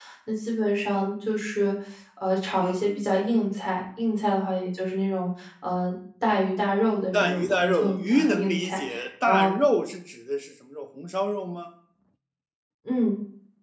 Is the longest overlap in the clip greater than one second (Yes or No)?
Yes